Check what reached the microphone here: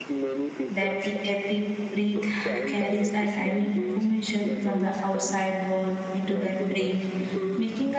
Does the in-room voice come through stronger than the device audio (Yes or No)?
Yes